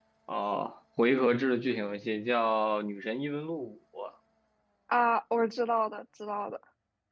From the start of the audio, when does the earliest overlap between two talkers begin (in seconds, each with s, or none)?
none